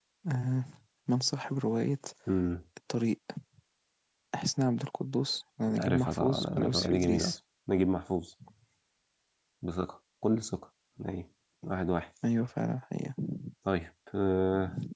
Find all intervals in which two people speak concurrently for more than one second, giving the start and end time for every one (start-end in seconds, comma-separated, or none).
5.8-7.4